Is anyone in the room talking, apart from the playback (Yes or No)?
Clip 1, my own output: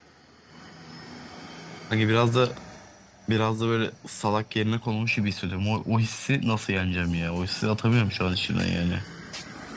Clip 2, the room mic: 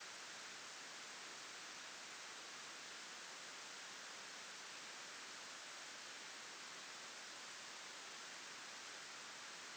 No